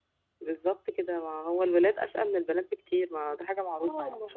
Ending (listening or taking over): taking over